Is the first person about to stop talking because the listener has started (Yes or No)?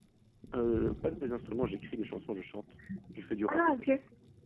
Yes